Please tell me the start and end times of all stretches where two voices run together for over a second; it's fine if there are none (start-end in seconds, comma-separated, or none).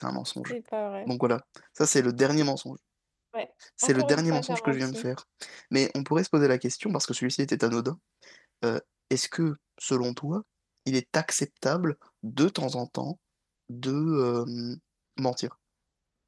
3.8-5.0